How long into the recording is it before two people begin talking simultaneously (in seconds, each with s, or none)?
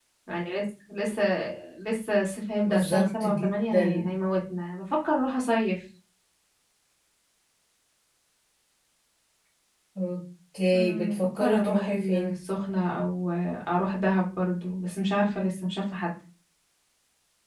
2.6 s